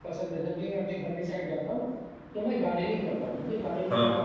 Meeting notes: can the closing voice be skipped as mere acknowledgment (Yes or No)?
Yes